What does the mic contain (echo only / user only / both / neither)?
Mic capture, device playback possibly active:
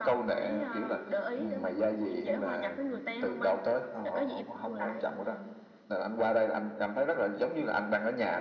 echo only